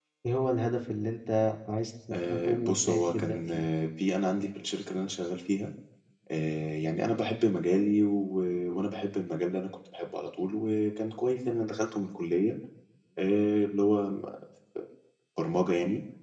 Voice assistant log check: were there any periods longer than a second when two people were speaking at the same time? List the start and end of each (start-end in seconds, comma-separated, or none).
2.1-3.4